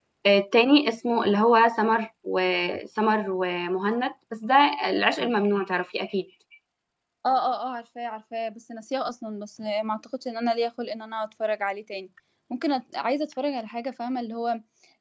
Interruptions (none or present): none